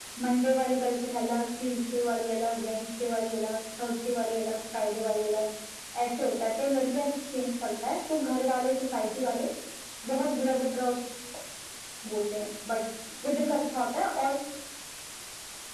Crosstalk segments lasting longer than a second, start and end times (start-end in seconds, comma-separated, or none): none